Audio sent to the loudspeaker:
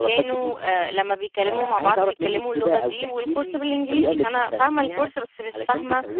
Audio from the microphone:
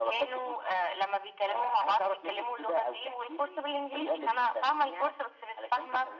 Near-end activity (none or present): none